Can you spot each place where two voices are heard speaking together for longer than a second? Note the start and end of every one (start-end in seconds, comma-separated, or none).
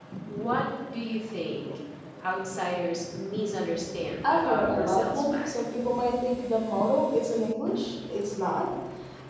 4.2-5.5